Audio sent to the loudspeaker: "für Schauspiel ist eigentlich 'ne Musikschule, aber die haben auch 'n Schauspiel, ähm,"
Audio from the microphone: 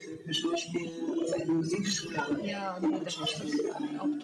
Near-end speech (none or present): present